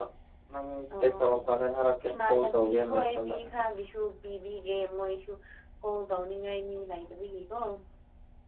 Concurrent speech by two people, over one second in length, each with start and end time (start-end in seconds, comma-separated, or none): 2.1-3.3